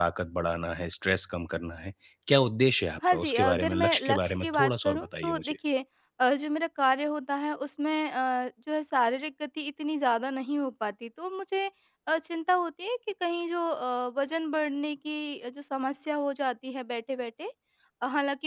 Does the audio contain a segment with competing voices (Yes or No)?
Yes